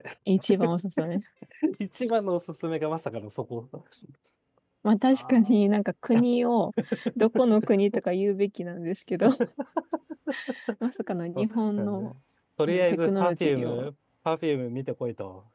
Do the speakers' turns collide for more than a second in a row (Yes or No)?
Yes